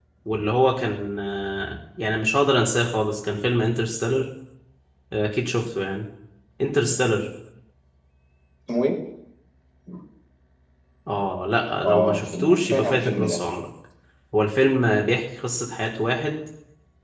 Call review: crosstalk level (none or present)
present